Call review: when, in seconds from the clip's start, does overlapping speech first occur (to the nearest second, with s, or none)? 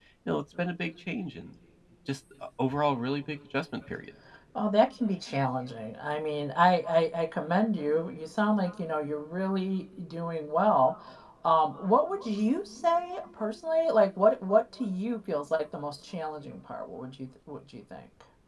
none